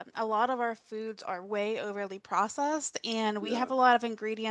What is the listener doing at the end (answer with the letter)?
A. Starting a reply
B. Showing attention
B